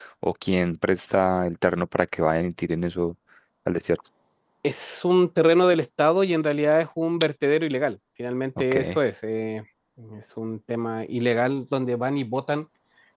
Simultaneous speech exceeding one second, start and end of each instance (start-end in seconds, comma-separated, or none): none